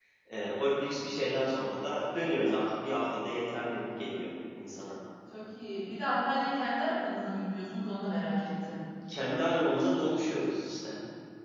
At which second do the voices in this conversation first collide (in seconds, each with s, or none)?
none